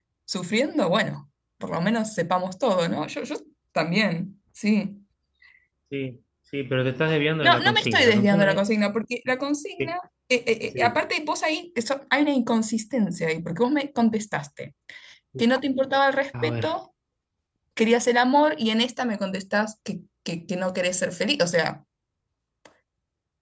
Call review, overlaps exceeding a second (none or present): present